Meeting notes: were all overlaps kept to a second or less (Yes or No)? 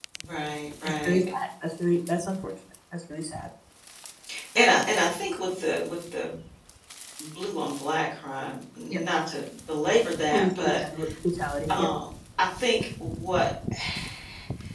Yes